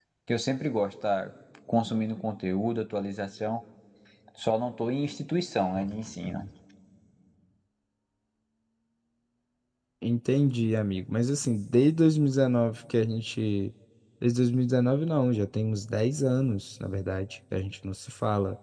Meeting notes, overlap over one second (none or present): none